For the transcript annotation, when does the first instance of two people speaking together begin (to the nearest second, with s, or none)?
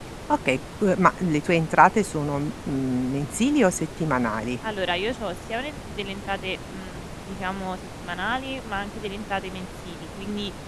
none